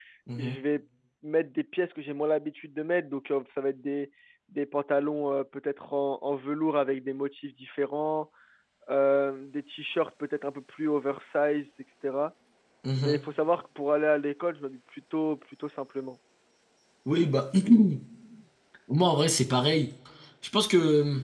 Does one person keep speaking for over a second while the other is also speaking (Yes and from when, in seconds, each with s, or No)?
No